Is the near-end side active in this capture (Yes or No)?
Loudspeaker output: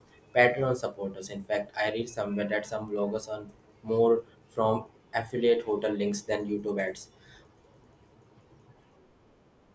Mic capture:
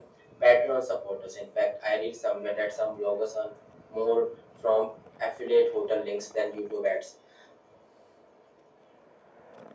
No